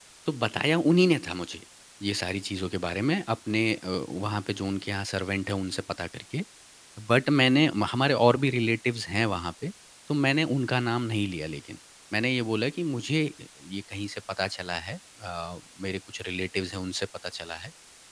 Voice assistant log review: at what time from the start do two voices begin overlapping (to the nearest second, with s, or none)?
none